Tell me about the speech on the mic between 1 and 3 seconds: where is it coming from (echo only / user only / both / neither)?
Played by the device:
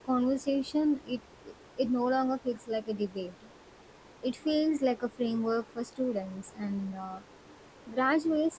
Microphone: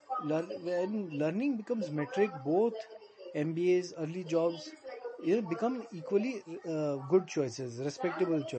both